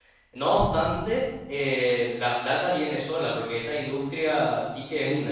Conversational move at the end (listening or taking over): listening